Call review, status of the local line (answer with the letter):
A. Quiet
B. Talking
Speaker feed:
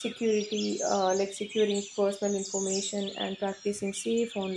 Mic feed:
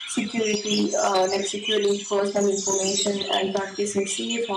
A